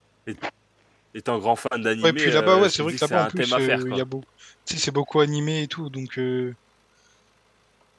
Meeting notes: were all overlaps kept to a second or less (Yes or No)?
No